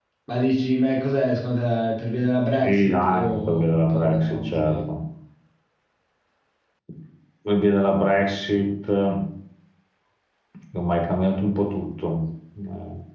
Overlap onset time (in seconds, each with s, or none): 2.5 s